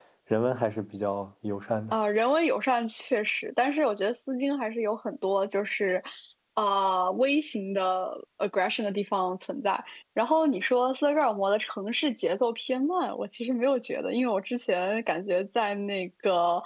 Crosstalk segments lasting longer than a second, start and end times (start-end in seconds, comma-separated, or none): none